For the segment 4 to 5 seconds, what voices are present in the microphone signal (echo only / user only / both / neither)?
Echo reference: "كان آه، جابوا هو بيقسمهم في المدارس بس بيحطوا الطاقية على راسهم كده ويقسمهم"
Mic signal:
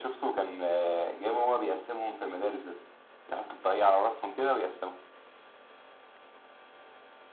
echo only